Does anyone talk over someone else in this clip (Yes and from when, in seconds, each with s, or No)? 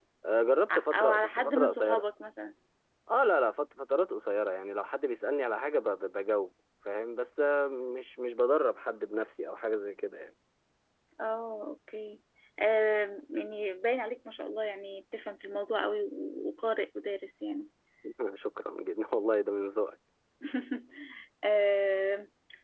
Yes, from 0.7 s